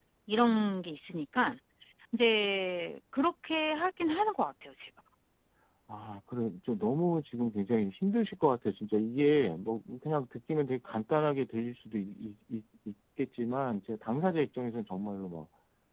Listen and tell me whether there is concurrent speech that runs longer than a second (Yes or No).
No